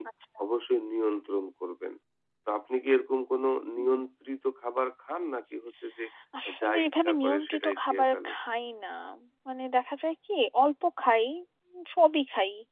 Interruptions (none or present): present